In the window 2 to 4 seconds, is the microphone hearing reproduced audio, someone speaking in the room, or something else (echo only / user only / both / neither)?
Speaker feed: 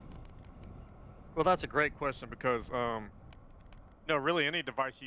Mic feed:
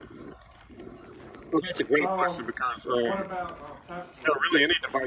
both